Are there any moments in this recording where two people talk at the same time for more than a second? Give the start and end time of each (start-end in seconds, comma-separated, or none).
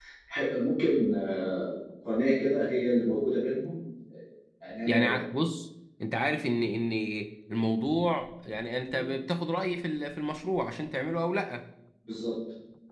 none